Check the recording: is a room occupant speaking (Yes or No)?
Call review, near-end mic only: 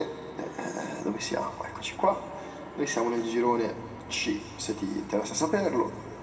No